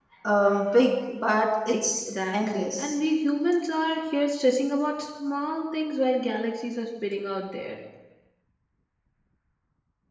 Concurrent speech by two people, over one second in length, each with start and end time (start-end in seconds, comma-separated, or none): 1.7-3.0